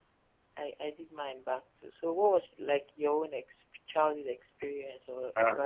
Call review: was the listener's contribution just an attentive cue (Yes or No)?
No